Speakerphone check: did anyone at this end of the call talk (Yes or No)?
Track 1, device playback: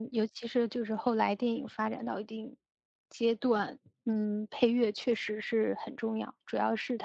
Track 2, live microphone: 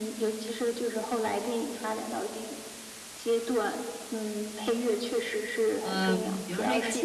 Yes